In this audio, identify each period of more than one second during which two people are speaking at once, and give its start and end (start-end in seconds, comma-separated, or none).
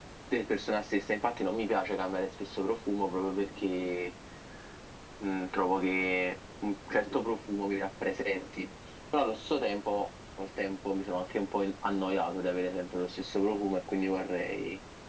none